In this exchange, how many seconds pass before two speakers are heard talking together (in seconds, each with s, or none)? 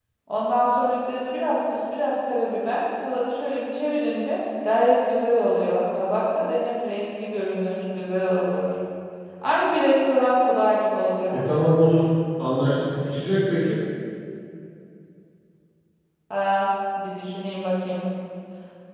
none